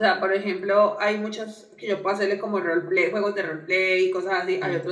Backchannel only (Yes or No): Yes